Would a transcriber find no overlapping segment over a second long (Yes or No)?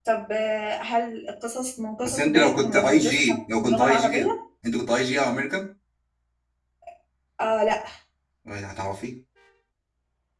No